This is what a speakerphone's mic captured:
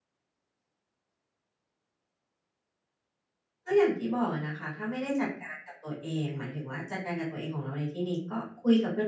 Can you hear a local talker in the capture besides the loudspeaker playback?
Yes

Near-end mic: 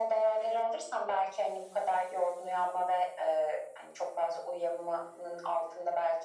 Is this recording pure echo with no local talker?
Yes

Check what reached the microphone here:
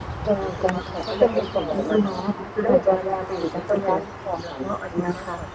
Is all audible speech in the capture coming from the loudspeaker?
Yes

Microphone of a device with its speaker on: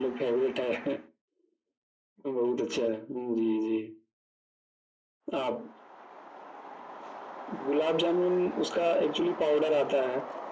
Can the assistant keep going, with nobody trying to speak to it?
Yes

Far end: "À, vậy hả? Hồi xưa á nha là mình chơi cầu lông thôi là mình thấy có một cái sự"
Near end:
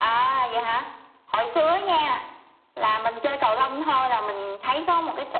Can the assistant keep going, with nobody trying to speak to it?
Yes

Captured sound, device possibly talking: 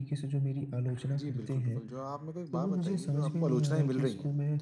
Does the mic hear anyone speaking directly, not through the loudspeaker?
Yes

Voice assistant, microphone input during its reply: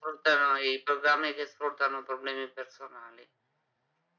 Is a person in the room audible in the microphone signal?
No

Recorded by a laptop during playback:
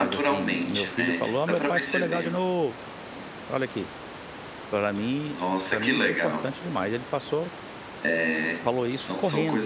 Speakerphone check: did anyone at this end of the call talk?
Yes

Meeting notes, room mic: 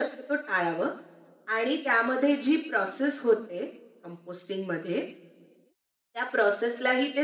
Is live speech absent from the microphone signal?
Yes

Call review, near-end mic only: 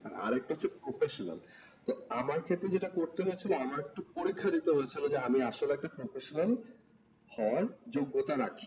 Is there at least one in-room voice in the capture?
No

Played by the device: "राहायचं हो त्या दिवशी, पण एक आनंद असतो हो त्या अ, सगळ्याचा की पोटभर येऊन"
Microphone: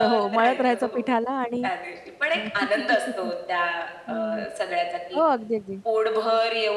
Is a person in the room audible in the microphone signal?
Yes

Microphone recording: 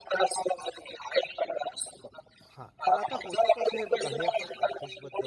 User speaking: Yes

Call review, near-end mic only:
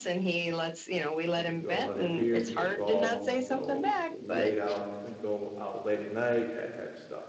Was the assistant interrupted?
Yes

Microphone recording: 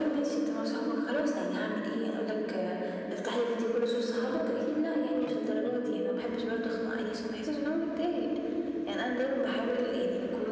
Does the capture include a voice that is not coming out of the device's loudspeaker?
Yes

